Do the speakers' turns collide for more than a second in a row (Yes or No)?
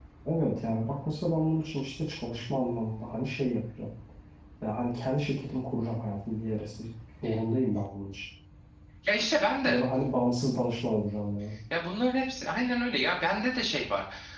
No